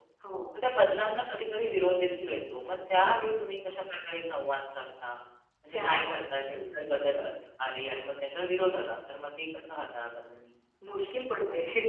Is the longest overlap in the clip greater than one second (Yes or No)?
No